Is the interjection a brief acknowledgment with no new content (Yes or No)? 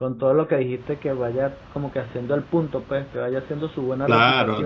No